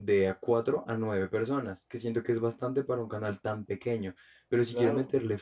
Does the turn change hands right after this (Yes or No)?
No